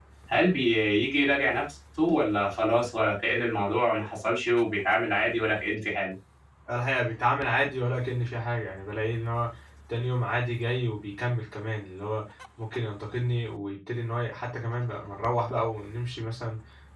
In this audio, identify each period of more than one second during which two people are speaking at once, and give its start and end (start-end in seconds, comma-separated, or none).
none